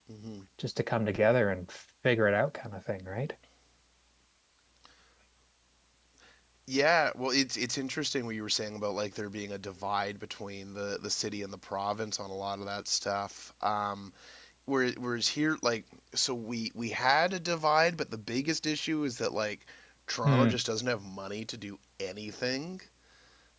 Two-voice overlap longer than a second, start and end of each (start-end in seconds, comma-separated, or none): none